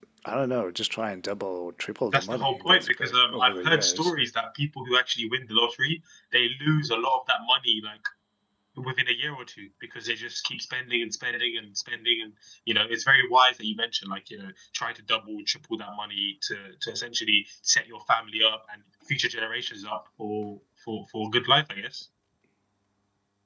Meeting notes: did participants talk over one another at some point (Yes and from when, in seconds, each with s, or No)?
Yes, from 2.1 s